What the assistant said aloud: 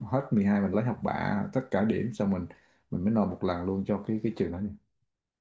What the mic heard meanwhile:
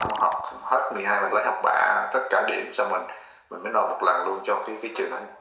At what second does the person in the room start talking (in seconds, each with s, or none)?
none